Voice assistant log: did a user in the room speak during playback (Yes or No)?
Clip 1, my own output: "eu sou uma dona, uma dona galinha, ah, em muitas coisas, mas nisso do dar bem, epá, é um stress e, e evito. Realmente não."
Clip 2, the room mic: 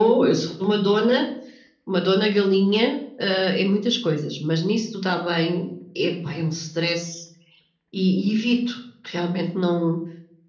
No